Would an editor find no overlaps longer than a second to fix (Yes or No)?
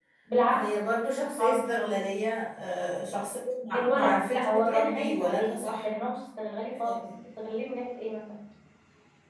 No